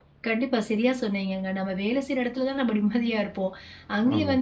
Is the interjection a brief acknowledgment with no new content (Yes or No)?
Yes